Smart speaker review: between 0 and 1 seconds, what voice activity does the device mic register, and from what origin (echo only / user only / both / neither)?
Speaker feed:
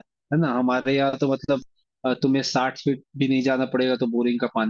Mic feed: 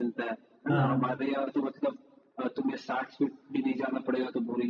both